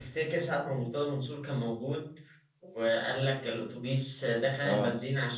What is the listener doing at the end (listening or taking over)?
listening